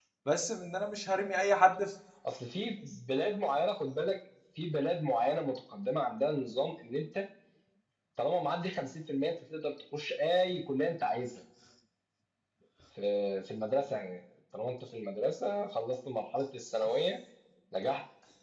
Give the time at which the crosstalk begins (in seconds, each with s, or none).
none